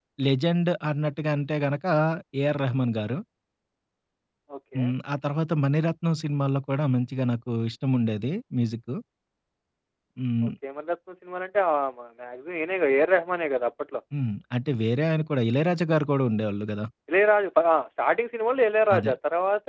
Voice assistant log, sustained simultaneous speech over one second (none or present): none